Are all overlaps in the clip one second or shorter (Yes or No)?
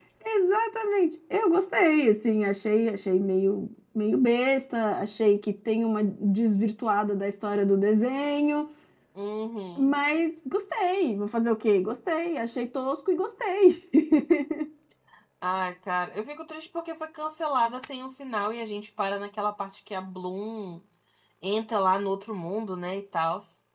Yes